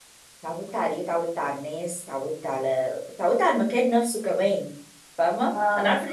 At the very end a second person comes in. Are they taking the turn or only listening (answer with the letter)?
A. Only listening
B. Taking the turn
A